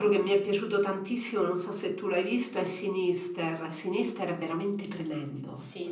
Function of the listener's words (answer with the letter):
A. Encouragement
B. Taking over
B